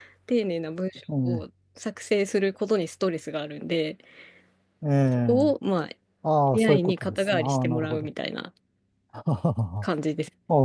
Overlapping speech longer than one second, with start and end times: 6.5-8.1

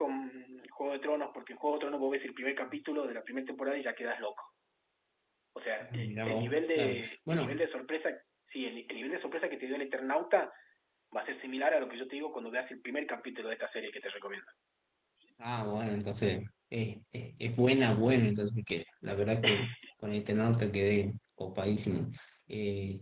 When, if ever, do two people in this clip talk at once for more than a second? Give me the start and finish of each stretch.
5.8-7.6

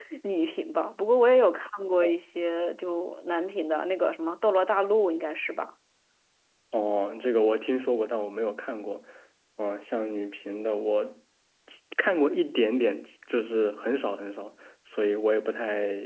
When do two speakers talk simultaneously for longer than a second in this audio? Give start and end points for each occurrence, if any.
none

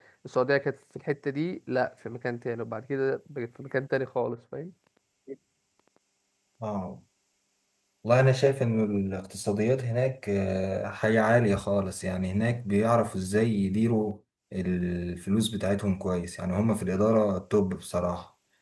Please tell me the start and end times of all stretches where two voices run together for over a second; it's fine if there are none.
none

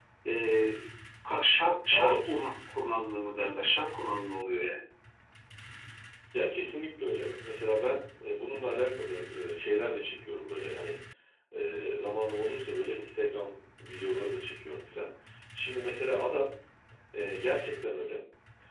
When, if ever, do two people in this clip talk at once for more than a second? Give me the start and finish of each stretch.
none

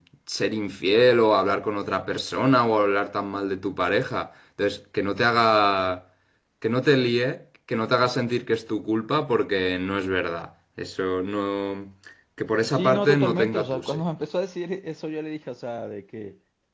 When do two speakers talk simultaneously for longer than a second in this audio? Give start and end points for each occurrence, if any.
12.7-14.0

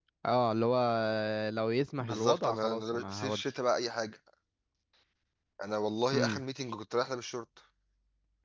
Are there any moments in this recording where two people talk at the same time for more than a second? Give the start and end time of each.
2.0-3.4

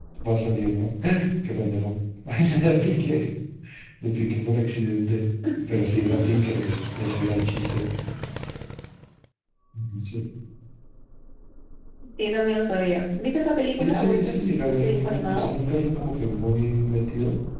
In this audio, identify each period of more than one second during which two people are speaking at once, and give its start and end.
13.8-15.5

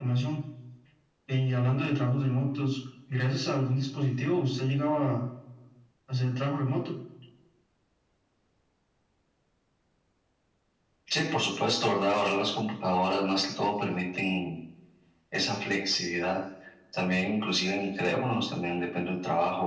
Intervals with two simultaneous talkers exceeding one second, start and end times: none

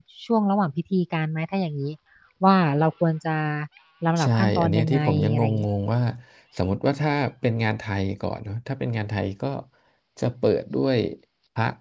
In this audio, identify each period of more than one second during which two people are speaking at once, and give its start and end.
4.2-5.4

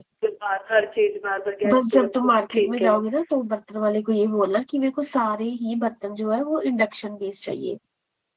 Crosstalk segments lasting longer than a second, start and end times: 1.7-2.9

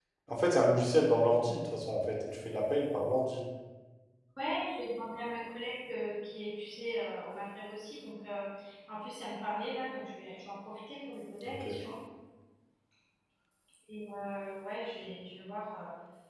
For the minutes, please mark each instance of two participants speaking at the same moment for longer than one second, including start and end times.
none

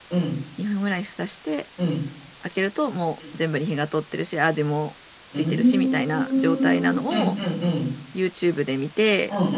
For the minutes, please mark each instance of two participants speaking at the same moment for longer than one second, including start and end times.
5.3-7.3

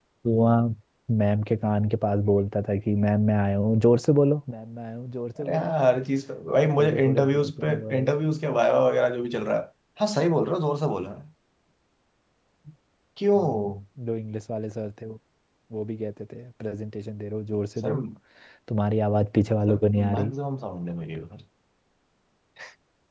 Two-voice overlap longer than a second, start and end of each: 6.8-8.1

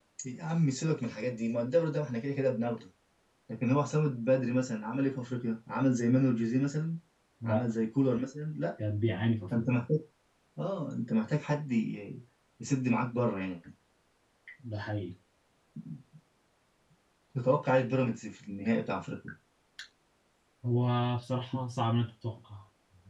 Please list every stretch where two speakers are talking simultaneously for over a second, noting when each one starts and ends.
none

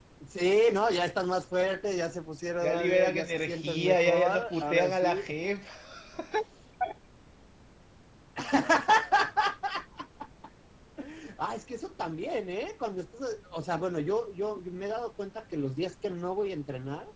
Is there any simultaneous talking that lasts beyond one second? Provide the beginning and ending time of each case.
2.6-5.2

